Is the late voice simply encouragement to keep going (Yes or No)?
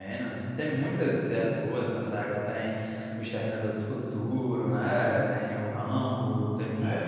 No